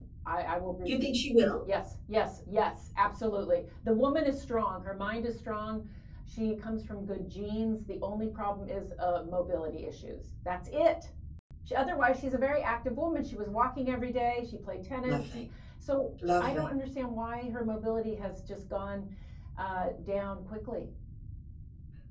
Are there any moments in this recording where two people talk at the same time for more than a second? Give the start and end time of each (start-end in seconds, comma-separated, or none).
none